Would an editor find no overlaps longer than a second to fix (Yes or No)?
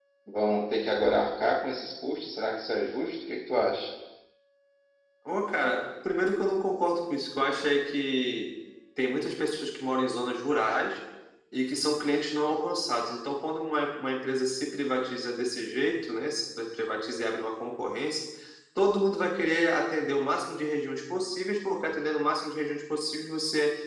Yes